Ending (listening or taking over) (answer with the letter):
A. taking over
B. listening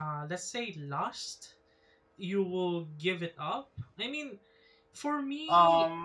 A